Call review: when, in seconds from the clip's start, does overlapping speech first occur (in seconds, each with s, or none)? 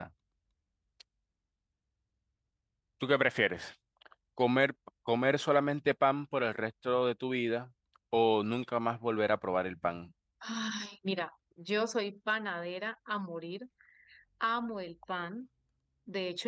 none